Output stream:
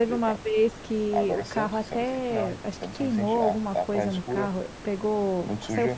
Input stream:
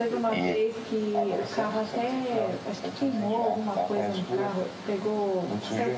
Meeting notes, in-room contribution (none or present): present